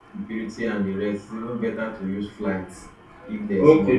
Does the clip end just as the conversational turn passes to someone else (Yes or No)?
Yes